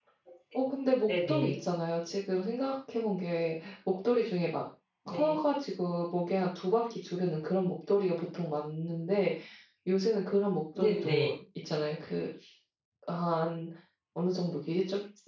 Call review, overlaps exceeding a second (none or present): none